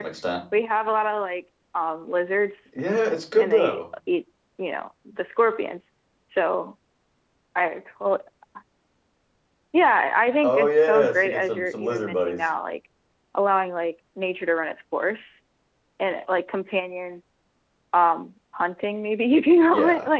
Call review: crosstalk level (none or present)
present